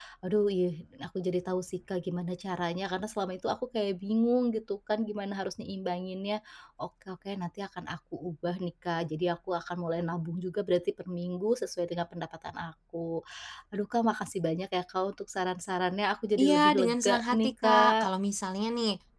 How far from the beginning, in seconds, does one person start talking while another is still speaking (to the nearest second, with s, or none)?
16 s